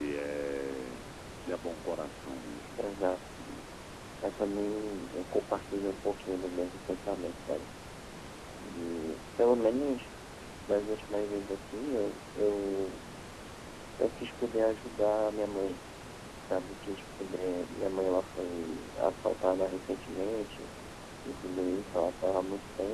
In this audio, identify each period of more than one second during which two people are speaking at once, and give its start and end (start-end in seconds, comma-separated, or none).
none